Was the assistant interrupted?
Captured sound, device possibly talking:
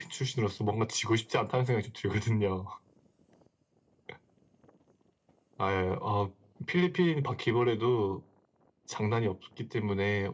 No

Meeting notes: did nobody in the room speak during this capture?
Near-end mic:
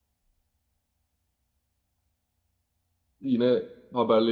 No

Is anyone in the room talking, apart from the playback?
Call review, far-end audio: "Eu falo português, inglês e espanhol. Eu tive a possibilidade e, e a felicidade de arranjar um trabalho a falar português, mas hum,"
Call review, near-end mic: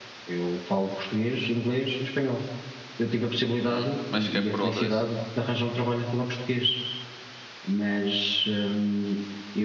Yes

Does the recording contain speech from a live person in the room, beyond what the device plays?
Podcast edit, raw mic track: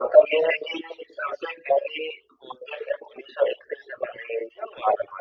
No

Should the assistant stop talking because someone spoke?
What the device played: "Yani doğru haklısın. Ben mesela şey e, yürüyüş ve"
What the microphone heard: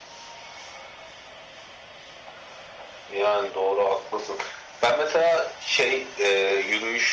No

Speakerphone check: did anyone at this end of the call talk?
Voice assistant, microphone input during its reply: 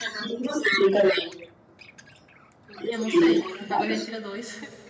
Yes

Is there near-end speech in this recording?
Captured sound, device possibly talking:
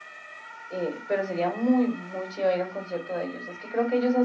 No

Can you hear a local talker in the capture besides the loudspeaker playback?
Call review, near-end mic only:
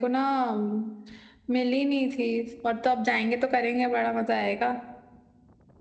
No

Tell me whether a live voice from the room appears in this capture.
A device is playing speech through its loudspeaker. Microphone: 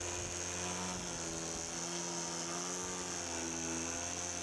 No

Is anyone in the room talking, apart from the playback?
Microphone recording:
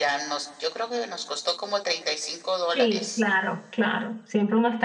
Yes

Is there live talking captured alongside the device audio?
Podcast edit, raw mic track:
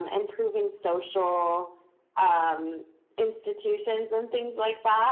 No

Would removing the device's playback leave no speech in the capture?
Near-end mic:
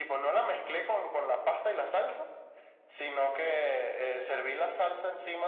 Yes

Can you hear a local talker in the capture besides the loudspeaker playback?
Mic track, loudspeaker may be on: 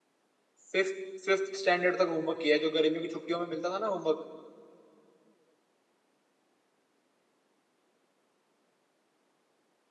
Yes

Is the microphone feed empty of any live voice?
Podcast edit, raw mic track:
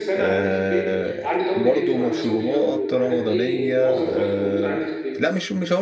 No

